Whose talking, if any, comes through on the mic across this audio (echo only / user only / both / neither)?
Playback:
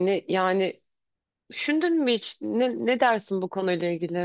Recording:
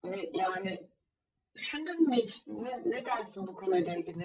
echo only